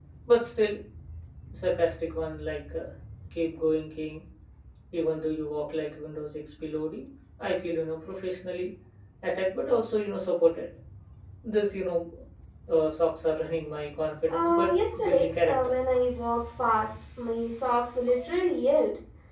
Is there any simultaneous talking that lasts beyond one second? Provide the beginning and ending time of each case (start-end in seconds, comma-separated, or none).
14.3-15.7